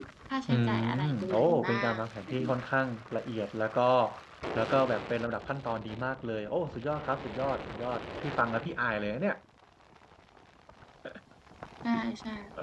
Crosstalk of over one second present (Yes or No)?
Yes